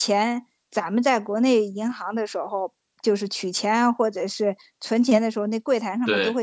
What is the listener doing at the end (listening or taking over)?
listening